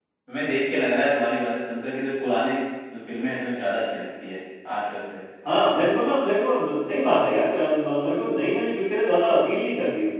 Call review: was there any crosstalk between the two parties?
No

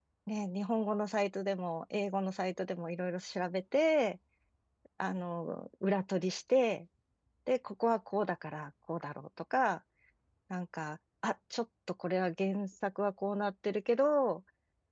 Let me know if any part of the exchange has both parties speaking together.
No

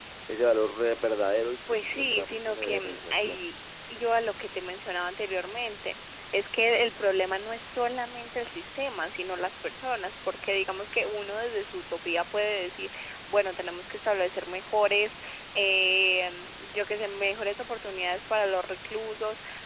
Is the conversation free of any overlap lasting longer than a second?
No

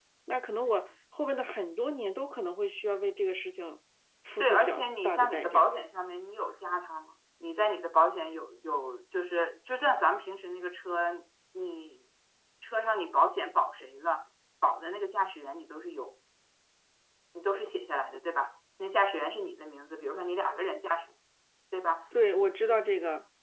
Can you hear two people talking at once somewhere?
Yes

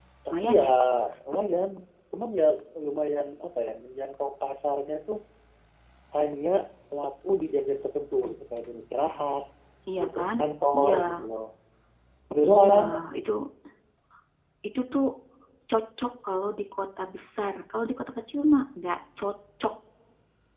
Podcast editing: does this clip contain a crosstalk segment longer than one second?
No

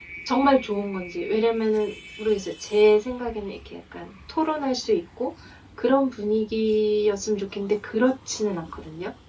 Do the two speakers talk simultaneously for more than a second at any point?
No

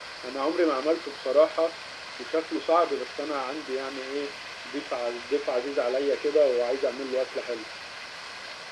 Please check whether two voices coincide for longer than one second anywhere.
No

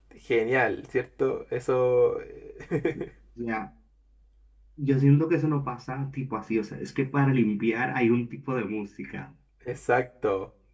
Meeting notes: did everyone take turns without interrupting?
Yes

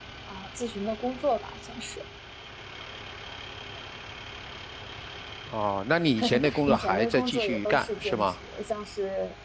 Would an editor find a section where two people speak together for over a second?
Yes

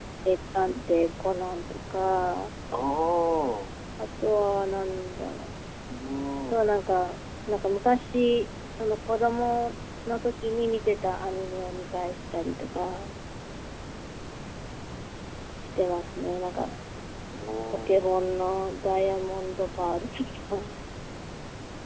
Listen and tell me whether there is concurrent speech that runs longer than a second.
No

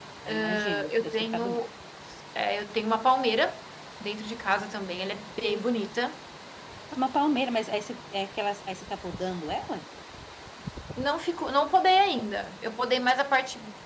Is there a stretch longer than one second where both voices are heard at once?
Yes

